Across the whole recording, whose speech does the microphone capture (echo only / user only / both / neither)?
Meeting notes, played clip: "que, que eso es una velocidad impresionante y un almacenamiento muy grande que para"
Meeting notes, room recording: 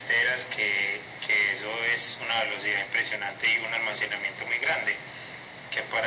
echo only